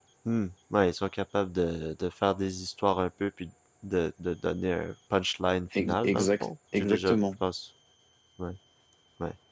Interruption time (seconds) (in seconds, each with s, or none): 5.7 s